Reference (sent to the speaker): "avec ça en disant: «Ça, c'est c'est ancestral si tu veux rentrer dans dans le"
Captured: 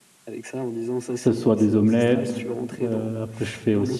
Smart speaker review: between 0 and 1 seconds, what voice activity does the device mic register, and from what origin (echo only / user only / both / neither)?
echo only